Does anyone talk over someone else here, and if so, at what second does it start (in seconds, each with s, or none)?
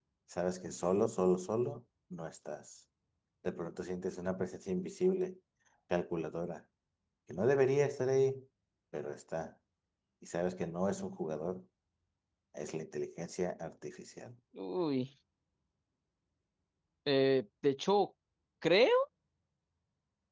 none